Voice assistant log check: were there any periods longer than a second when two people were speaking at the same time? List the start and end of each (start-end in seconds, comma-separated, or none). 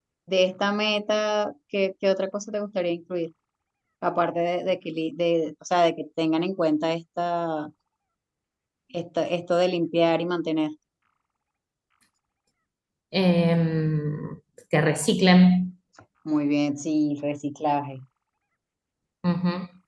none